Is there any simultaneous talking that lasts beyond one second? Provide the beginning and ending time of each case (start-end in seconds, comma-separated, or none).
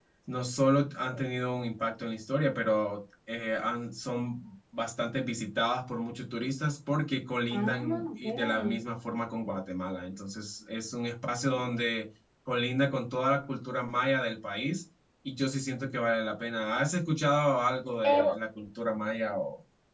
7.5-8.8